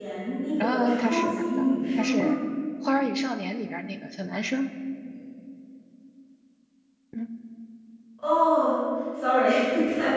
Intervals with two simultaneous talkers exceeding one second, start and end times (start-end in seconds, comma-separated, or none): 0.6-2.2